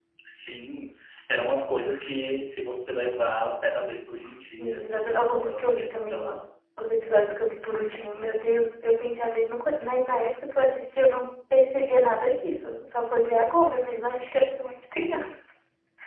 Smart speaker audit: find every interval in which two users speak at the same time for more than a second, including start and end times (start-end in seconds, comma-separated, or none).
4.3-6.4